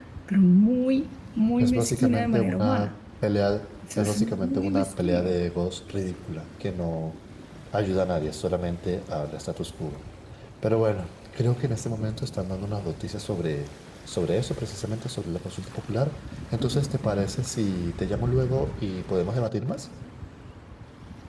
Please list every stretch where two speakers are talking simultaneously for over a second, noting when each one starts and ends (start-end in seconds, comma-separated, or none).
1.6-2.9, 4.0-5.4